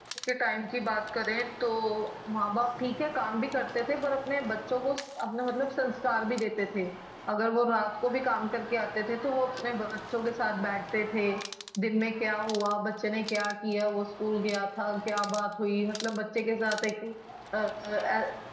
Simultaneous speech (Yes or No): No